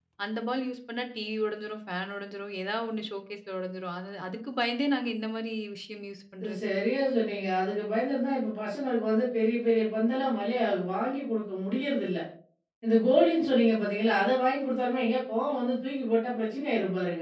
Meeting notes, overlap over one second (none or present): none